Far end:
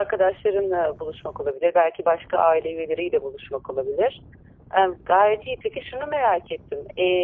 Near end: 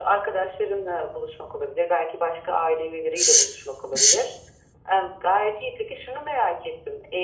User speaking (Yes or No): Yes